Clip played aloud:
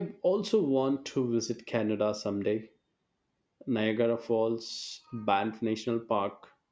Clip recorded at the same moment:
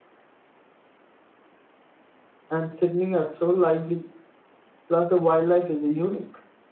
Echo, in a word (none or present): none